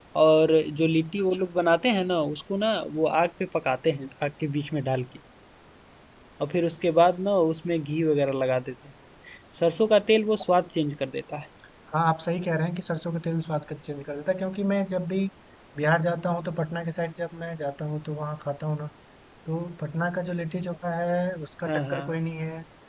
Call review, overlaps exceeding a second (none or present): none